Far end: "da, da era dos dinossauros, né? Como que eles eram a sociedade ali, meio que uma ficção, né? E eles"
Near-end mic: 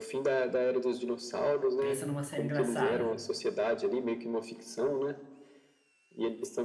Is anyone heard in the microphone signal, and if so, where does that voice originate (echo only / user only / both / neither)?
both